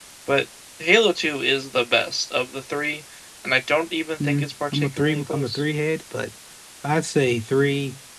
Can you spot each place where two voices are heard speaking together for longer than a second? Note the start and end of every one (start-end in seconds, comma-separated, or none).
4.2-5.6